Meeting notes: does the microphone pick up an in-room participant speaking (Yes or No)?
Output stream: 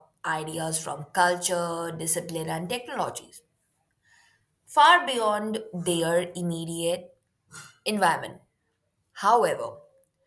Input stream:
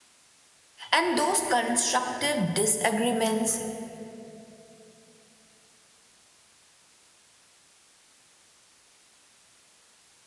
Yes